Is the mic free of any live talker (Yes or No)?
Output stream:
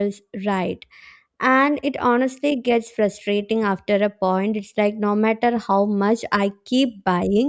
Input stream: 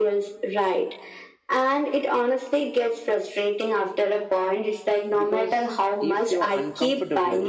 No